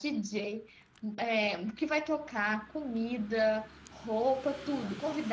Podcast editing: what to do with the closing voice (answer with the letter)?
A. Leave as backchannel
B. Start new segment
A